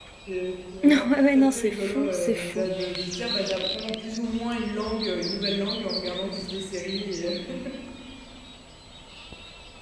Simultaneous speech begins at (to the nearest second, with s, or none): 1 s